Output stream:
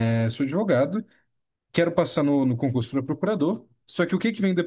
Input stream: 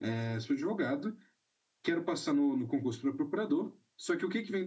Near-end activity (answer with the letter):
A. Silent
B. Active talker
A